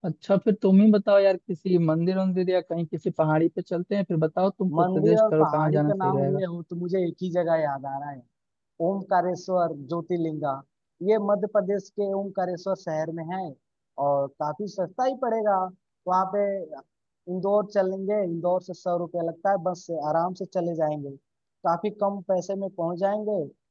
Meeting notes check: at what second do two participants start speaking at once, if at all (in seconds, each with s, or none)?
4.7 s